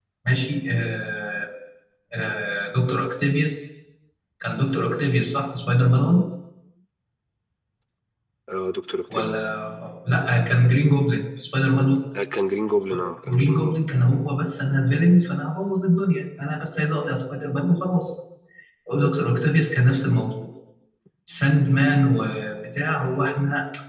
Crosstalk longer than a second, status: none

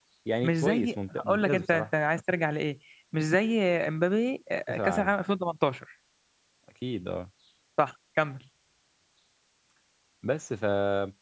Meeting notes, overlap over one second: present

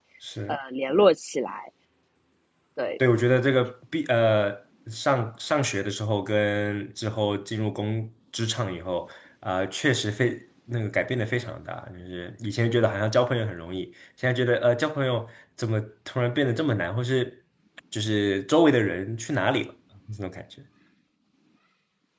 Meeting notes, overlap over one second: none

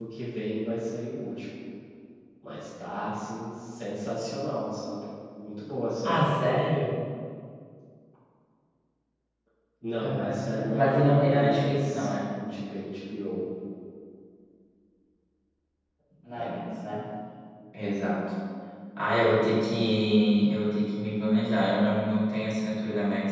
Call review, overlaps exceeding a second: present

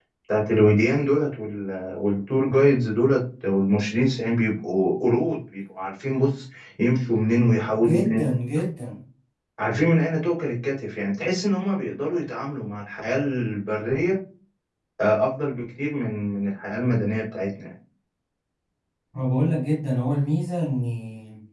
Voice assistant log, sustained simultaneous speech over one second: none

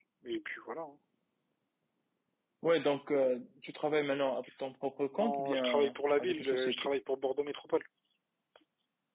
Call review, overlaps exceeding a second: present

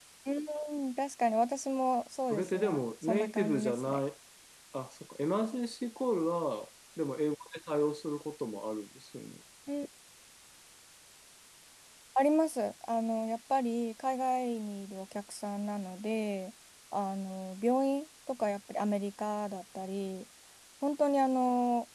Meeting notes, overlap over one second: present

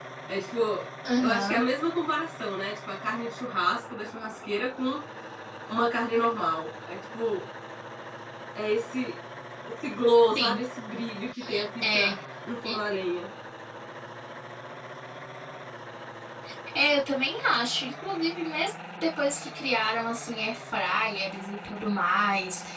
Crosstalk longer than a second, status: none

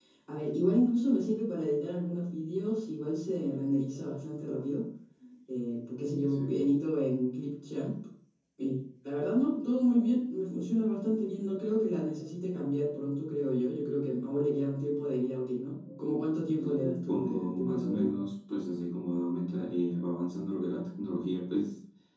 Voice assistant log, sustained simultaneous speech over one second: present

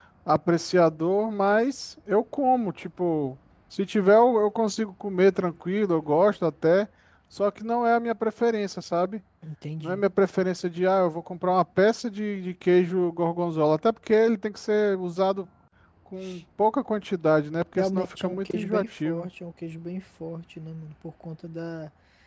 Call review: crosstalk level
present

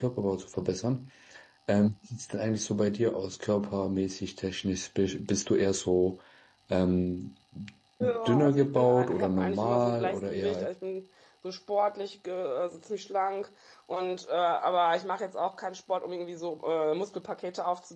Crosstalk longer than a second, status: present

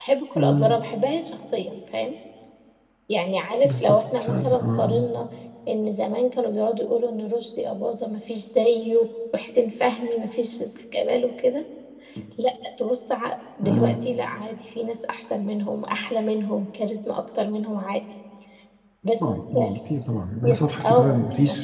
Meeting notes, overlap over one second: present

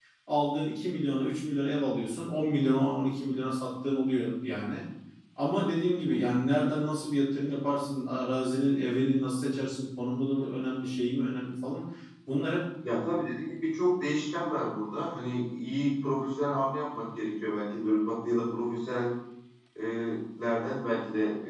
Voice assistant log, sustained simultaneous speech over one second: none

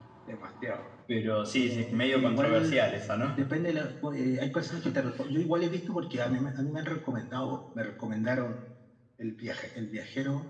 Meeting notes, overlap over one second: present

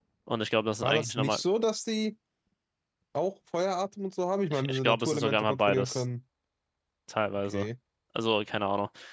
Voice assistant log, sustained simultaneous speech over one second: present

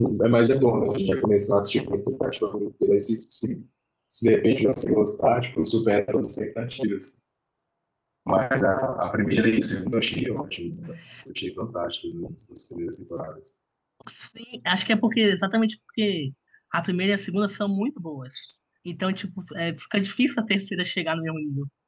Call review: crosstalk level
none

